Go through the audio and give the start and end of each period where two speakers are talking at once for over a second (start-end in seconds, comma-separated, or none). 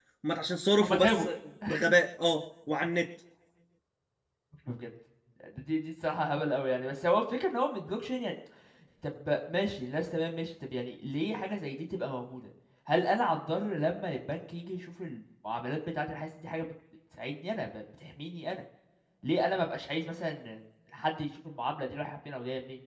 none